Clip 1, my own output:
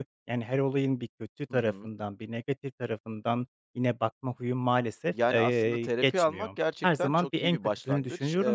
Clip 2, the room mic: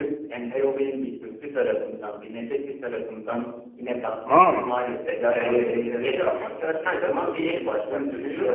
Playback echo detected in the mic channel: Yes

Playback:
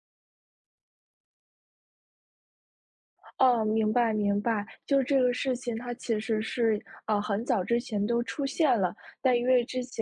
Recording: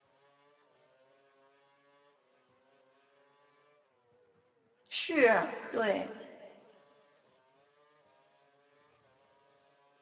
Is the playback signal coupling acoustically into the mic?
No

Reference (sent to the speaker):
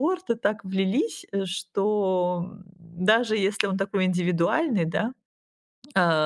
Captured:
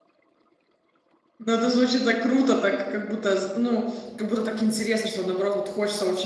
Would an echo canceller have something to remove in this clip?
No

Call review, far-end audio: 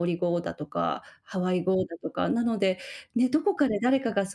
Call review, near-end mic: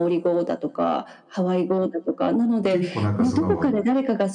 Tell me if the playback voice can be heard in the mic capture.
Yes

